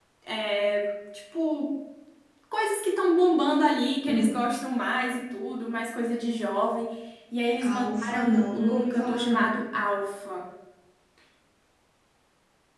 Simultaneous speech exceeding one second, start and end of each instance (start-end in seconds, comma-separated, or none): 7.6-9.6